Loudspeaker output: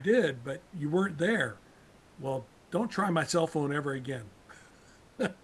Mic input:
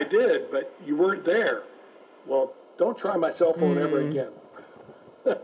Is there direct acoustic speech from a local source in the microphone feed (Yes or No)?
Yes